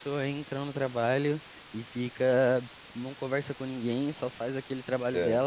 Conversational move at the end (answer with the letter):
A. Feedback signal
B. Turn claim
A